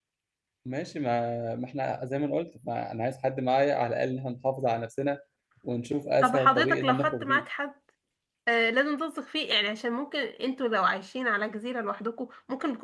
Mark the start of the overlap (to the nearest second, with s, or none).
6 s